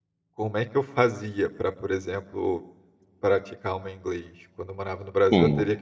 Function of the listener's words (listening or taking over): listening